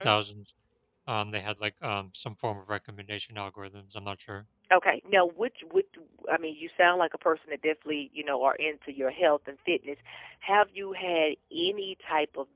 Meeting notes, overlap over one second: none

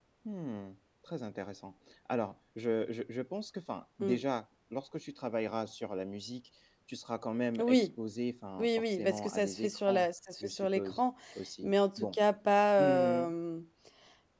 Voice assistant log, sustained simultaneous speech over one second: present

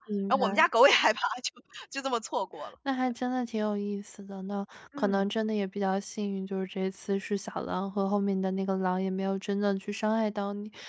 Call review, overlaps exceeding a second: none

